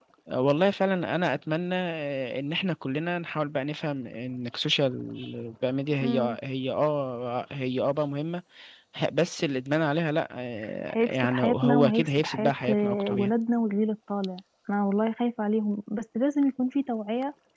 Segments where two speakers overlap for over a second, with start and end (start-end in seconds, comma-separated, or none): 10.9-13.3